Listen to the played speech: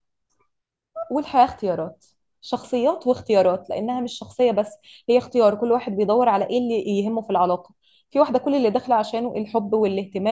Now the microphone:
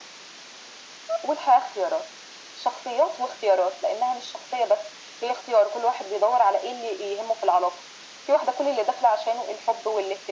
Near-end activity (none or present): none